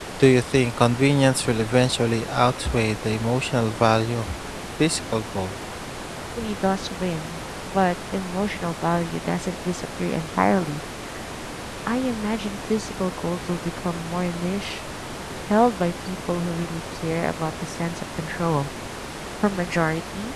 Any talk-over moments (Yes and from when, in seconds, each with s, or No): No